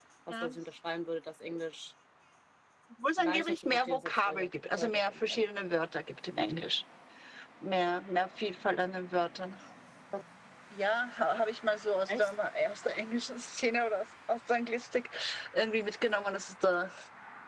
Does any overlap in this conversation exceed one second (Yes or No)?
Yes